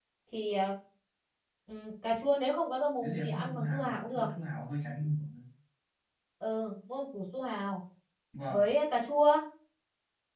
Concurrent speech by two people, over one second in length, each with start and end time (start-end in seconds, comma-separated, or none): 3.0-4.2